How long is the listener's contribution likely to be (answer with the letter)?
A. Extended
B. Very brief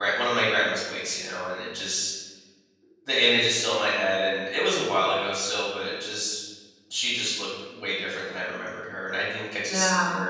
A